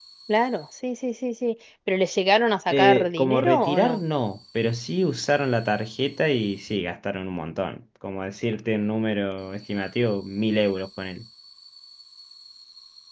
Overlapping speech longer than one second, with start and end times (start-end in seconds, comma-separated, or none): 2.7-4.0